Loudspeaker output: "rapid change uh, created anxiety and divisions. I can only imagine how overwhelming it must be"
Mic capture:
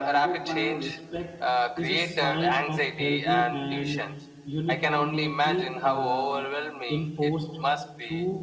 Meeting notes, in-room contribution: present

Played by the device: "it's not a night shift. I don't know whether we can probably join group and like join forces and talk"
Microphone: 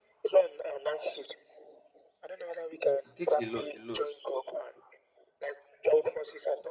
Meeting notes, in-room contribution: present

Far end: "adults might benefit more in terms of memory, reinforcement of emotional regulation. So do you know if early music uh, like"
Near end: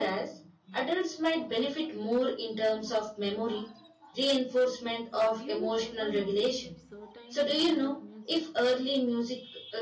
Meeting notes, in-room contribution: present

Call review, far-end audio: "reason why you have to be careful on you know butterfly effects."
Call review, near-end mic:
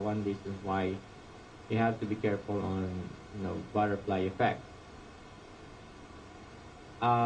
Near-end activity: none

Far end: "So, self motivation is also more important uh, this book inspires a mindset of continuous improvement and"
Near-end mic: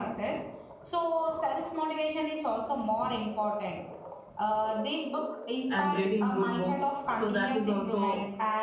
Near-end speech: present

